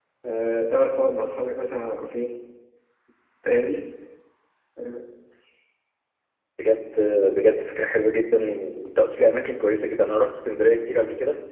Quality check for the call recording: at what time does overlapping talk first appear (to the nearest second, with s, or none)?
none